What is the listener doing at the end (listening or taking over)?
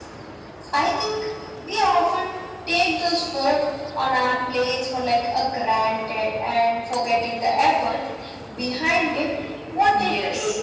taking over